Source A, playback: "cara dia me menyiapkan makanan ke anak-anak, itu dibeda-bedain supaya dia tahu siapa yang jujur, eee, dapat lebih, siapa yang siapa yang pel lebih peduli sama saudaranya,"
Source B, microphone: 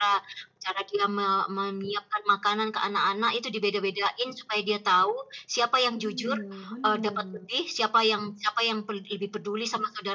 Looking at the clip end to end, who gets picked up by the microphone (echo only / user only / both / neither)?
both